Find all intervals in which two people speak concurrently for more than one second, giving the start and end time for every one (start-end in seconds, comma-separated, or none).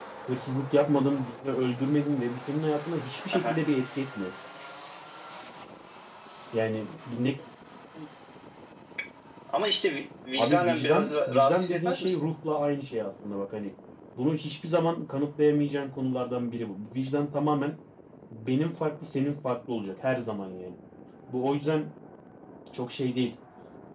10.4-12.3